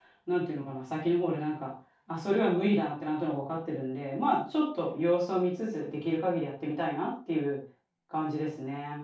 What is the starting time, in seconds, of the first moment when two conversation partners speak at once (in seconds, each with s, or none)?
none